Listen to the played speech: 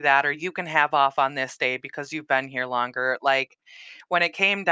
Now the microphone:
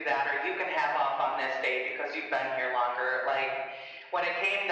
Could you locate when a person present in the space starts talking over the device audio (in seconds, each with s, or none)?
none